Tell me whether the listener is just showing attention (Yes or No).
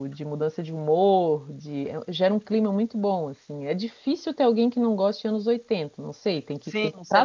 No